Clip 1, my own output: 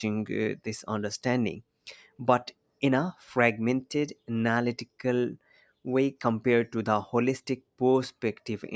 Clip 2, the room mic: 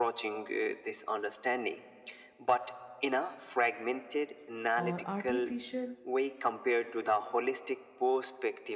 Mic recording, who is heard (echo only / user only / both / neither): both